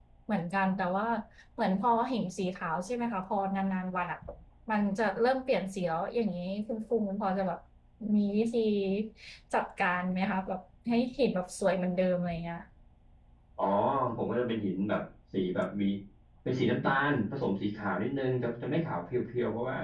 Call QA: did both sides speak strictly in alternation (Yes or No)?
Yes